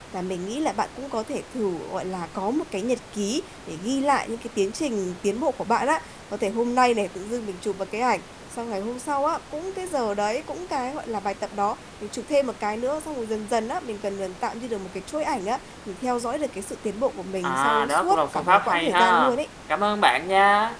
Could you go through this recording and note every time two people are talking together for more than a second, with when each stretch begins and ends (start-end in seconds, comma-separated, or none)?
17.4-19.4